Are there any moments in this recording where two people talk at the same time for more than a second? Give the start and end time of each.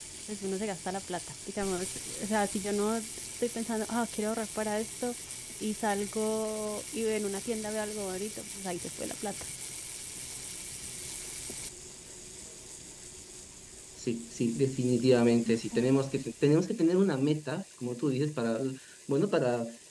none

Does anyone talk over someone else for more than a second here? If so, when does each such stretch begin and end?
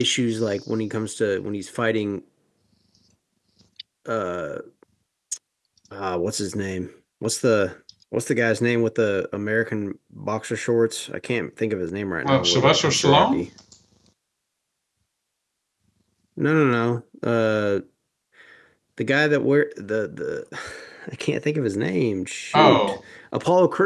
12.2-13.4

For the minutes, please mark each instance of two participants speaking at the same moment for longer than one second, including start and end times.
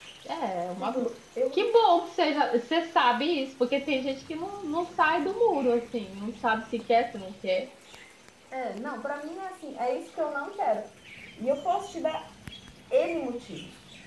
none

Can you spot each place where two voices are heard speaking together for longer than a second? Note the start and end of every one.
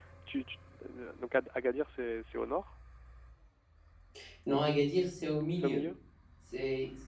none

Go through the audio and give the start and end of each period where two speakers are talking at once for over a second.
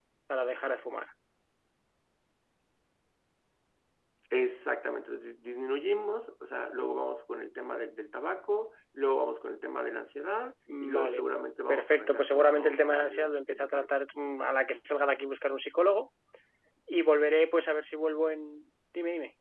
11.7-13.9

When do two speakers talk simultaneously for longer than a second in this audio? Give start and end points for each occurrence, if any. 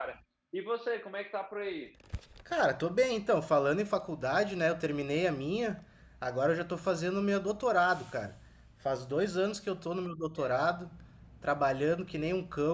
none

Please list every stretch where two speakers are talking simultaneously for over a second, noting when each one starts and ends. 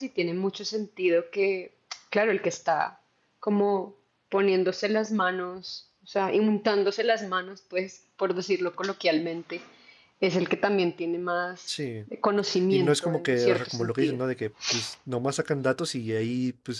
12.7-14.2

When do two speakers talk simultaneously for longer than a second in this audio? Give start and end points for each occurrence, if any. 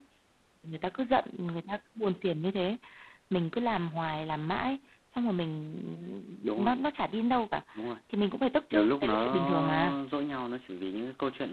8.7-10.0

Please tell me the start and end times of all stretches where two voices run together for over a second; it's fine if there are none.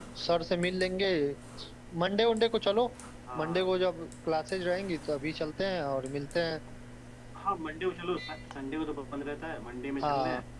none

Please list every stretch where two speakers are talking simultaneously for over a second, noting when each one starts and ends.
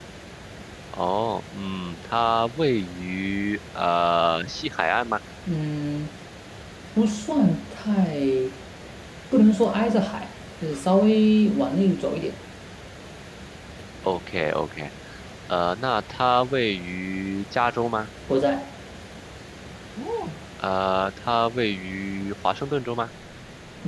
none

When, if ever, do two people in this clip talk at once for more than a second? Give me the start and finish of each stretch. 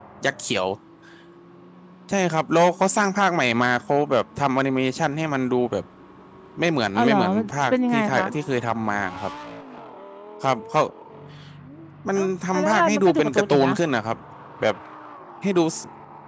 7.0-8.2, 12.2-13.7

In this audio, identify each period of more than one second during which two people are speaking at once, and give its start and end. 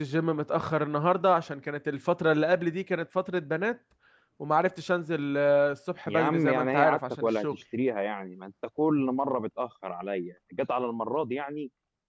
6.1-7.6

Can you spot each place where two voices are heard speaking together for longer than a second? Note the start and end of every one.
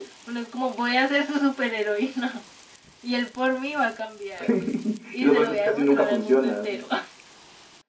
5.2-6.8

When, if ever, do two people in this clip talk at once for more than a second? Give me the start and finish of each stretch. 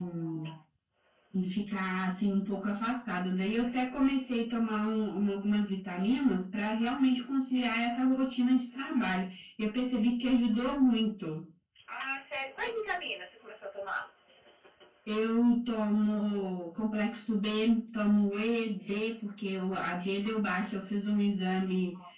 none

